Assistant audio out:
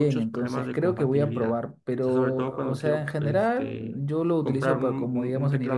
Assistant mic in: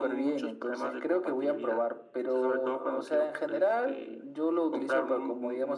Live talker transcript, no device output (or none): none